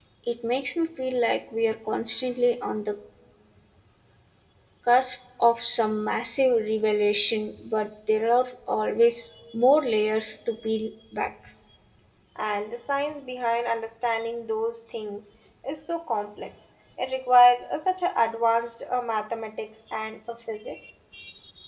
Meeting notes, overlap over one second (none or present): none